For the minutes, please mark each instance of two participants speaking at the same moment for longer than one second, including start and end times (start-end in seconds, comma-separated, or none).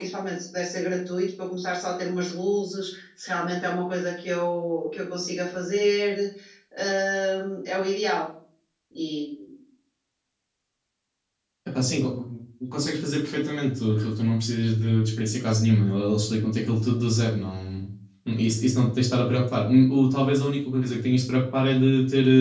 none